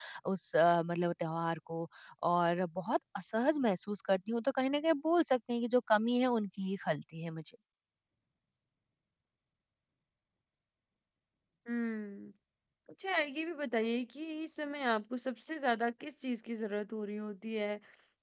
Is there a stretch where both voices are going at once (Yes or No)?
No